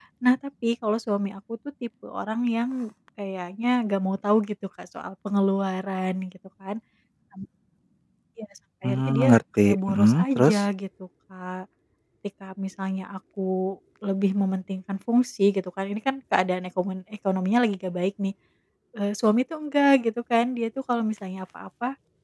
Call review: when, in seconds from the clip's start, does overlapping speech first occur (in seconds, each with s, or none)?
8.8 s